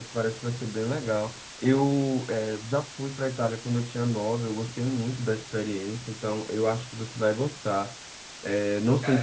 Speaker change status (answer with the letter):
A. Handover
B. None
B